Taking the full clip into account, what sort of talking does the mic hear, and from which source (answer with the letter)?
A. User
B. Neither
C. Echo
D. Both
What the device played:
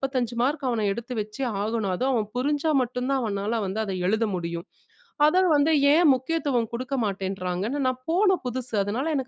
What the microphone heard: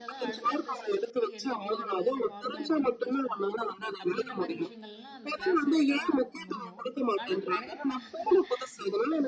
D